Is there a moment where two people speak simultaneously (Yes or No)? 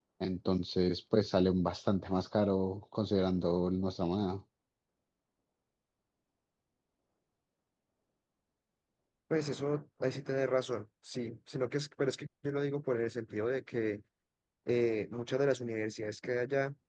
No